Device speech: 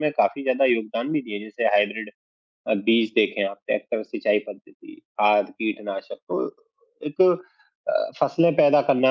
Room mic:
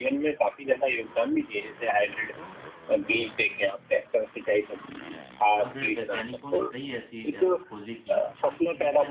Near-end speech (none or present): present